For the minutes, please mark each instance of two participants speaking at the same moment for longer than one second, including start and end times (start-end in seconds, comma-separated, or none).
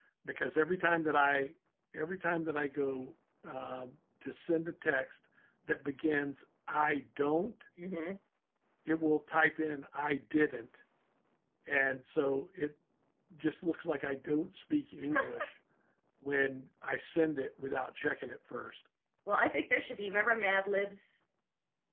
none